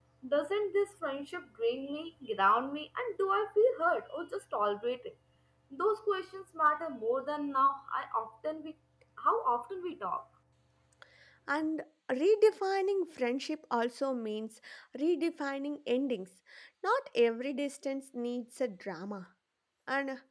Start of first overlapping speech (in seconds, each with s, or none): none